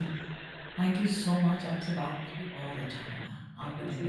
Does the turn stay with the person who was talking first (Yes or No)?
No